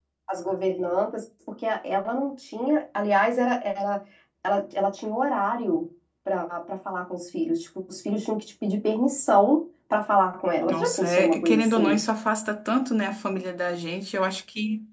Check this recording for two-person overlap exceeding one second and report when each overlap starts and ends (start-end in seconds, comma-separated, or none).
10.7-12.0